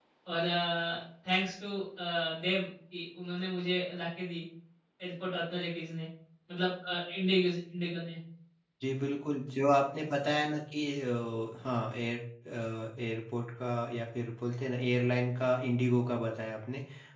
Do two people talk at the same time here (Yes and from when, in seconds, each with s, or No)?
No